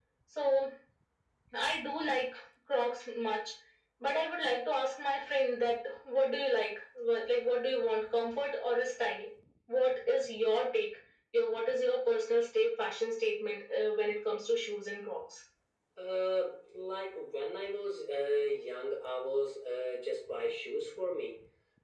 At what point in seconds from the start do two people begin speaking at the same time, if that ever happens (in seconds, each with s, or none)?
none